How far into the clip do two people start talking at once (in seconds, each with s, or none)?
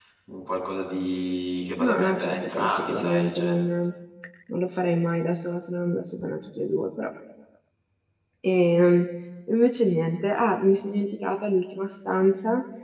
1.8 s